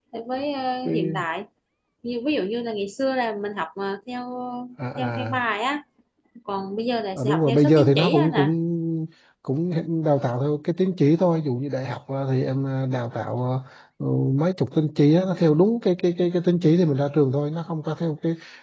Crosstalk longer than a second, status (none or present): present